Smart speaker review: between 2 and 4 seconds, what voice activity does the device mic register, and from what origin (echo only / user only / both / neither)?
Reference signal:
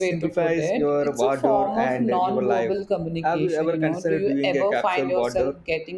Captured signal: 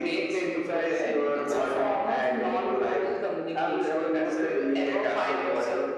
echo only